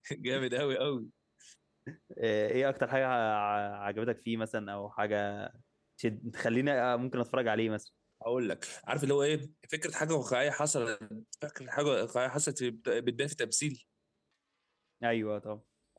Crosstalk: none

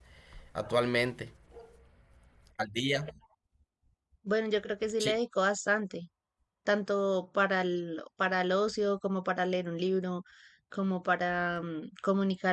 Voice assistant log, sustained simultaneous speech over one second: none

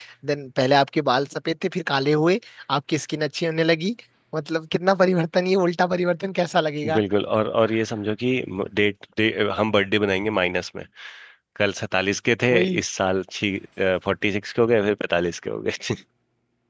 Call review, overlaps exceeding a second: none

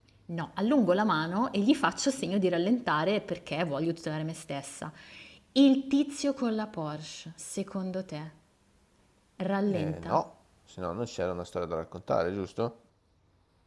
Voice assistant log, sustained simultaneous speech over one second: none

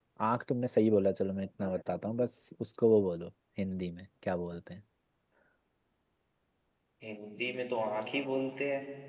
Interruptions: none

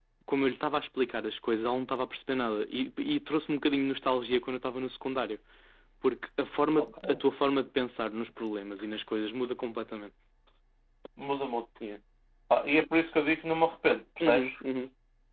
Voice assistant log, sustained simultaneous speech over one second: none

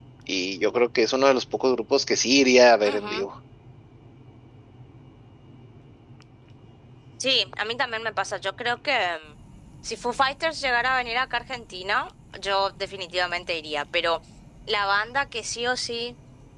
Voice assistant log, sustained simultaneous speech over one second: none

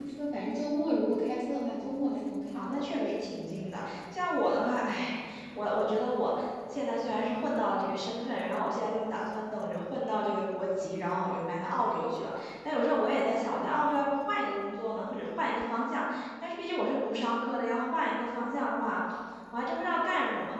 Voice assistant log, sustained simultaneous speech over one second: none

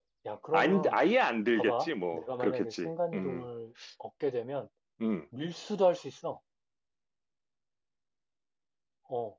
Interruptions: present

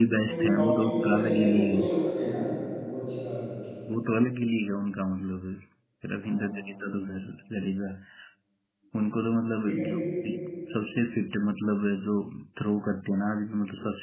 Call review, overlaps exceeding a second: present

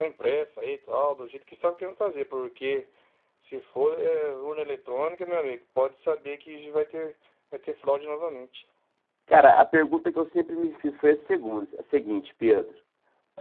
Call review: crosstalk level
none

